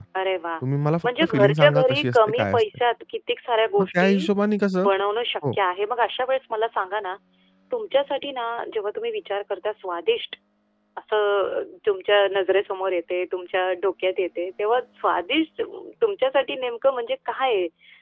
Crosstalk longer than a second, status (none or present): present